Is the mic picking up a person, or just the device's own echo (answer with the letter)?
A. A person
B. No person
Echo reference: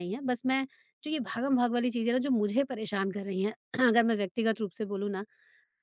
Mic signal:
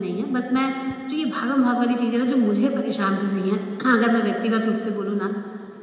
B